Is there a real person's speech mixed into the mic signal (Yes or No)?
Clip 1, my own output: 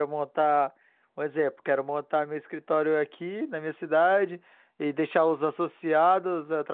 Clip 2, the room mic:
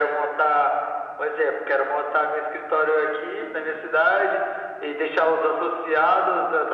No